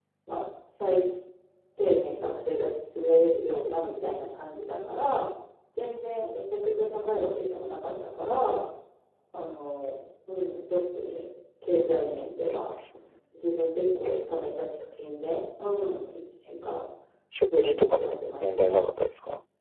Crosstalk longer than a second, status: present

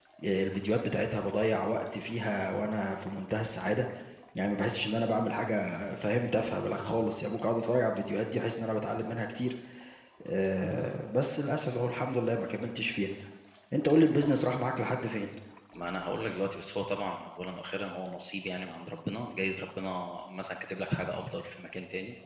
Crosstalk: none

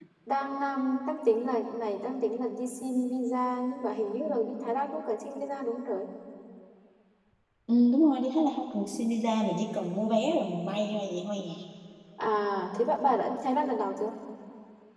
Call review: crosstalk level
none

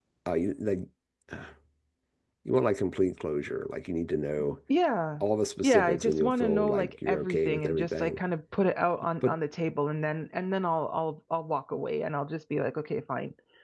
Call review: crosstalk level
present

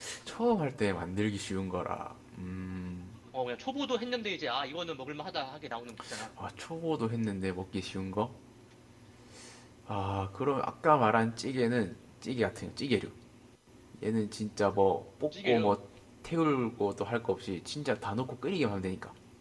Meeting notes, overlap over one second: none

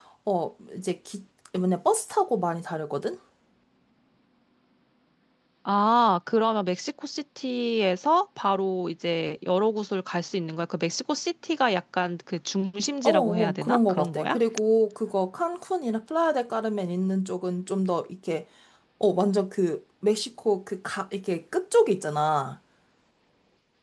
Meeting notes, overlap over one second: present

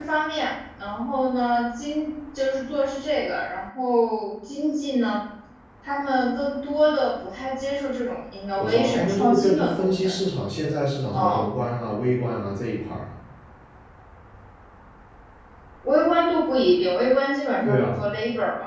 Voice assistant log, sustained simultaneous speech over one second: present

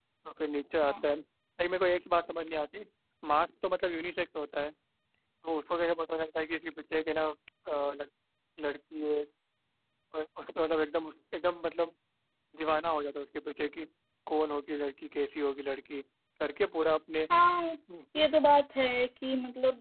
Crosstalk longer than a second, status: none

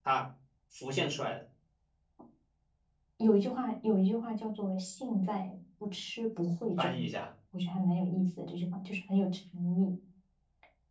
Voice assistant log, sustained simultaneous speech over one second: none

